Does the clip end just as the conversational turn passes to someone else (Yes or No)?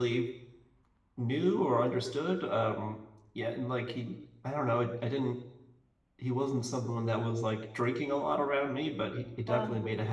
No